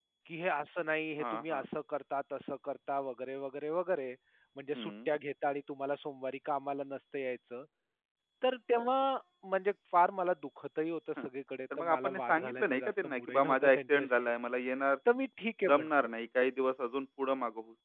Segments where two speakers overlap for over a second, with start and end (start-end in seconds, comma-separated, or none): 11.8-14.3